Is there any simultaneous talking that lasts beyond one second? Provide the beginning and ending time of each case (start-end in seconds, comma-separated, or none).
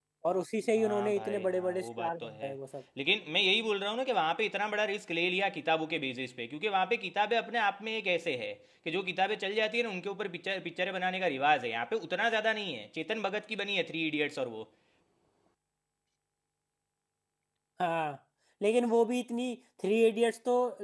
0.8-2.5